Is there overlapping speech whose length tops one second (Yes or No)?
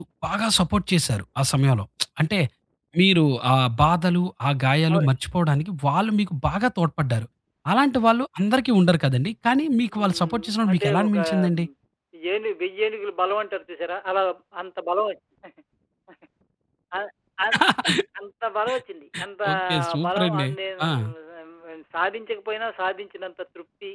Yes